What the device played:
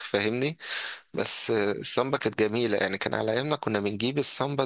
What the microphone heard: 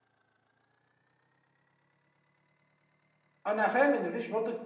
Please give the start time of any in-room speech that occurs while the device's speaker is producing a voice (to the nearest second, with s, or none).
3 s